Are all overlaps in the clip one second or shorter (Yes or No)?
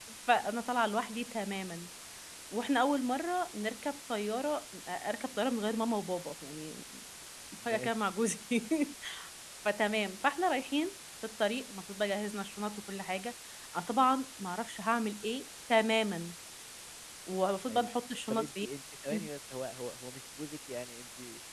Yes